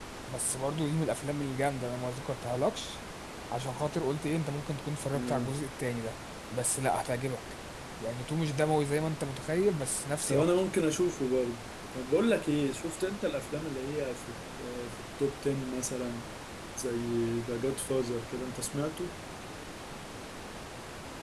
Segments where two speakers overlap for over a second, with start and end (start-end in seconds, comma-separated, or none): none